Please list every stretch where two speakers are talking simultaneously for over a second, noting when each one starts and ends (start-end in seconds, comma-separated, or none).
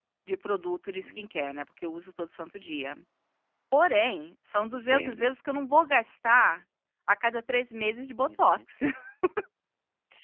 none